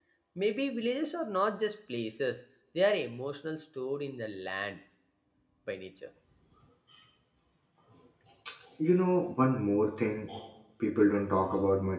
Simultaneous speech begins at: none

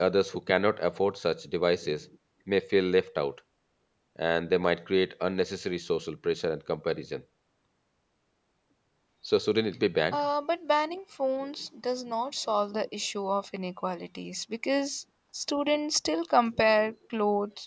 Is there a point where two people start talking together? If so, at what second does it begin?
none

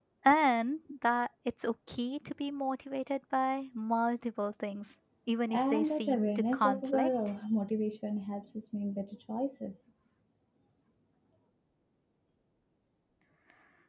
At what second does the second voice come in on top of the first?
5.5 s

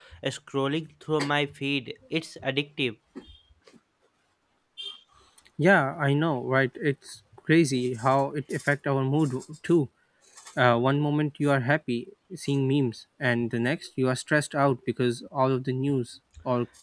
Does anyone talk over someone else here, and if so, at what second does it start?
none

